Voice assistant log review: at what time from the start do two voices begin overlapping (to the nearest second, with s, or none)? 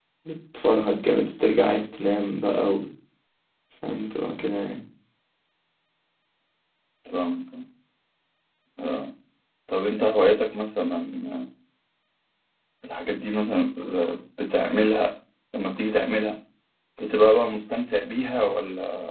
none